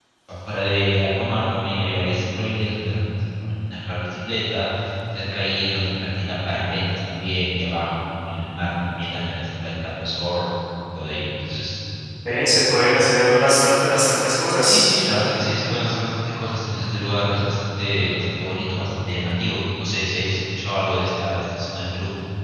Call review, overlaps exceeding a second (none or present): none